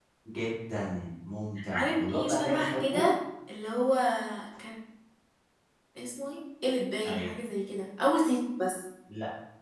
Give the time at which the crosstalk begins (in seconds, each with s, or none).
1.7 s